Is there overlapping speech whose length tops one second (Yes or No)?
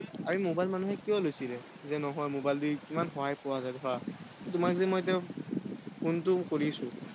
No